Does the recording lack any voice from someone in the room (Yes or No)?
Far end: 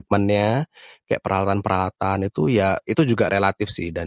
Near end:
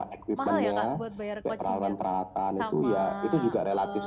No